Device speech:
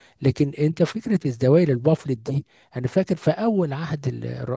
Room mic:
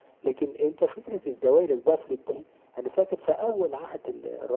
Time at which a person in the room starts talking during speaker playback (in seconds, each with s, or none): none